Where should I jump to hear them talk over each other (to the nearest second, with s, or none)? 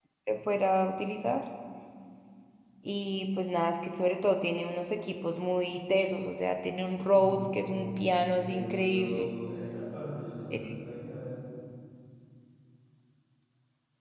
7 s